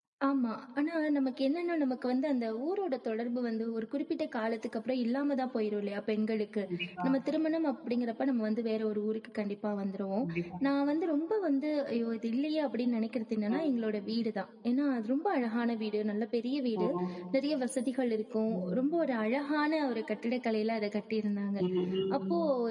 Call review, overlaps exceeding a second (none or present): none